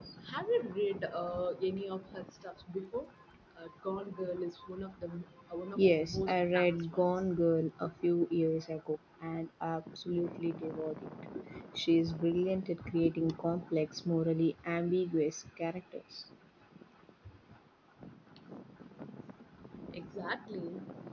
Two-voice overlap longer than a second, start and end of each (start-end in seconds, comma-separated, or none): 5.8-7.3